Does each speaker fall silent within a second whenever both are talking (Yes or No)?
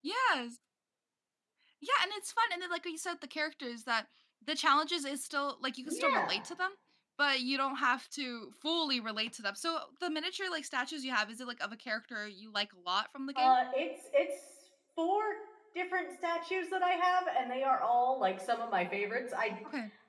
Yes